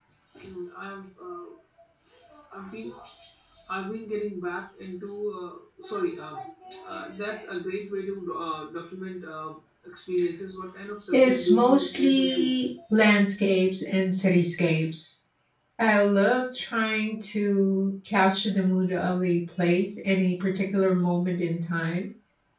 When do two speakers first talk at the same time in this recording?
11.1 s

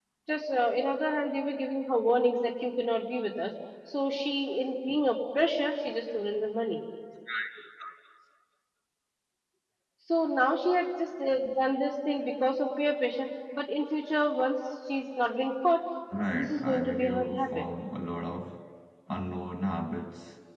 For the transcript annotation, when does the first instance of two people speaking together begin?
16.3 s

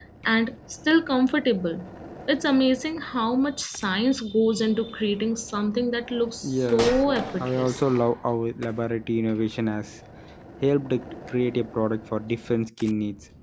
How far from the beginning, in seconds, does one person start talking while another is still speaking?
6.4 s

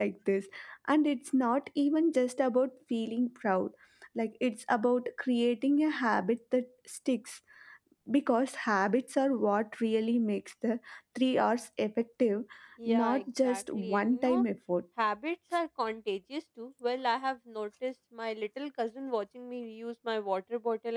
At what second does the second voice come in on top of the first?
12.9 s

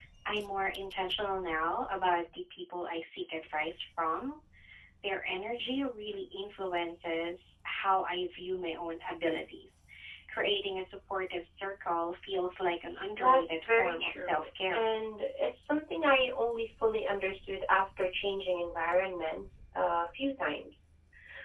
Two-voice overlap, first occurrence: 13.2 s

